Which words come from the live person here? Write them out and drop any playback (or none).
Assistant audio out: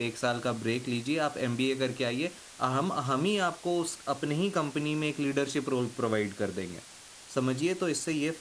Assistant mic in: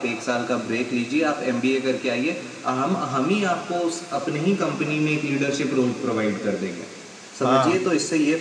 हाँ